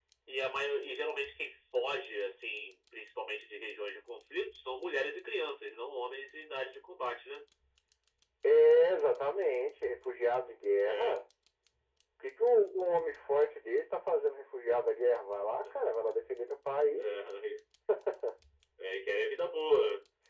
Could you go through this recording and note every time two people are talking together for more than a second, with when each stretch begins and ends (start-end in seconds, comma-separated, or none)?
none